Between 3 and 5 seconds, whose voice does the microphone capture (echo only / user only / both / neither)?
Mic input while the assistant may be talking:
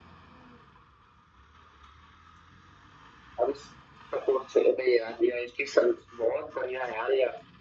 echo only